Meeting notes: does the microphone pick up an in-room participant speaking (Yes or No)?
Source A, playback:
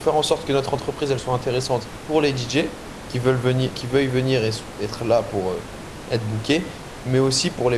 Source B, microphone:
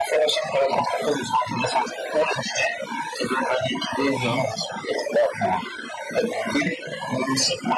Yes